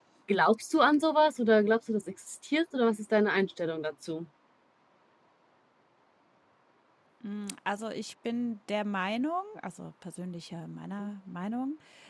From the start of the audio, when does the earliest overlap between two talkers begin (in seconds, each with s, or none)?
none